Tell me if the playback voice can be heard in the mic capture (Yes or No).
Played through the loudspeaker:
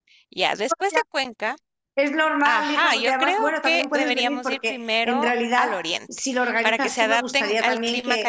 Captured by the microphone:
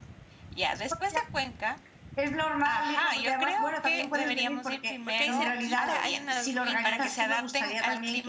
Yes